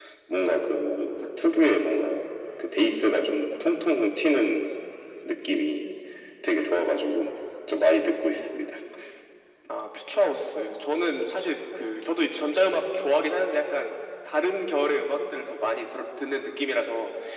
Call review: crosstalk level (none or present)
none